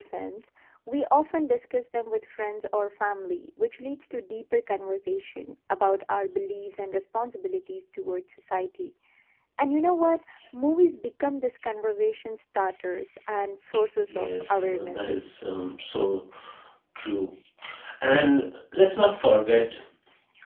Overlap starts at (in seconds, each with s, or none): 14.1 s